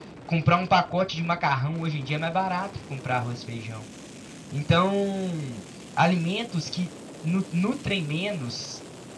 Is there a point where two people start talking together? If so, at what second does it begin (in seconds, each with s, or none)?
none